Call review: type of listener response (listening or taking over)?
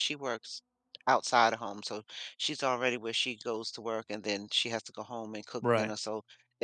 listening